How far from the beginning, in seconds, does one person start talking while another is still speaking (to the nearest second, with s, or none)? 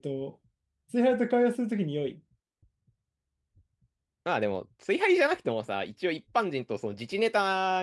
none